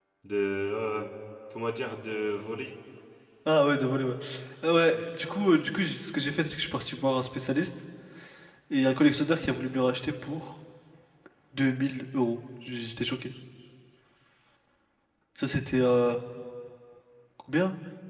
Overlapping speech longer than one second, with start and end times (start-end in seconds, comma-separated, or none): none